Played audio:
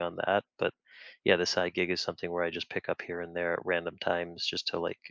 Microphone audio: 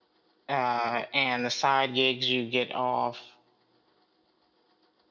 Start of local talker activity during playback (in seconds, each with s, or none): 0.5 s